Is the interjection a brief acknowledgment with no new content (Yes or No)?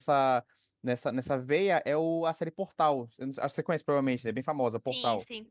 No